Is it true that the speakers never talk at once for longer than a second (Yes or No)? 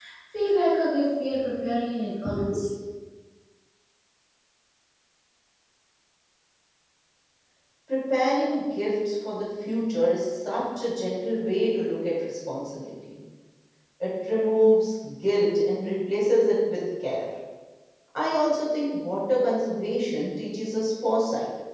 Yes